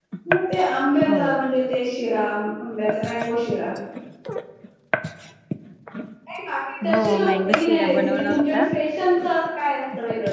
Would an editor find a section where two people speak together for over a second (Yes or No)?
Yes